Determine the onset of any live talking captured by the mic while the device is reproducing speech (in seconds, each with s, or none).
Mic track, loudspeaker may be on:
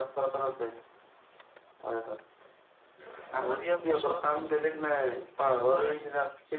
3.4 s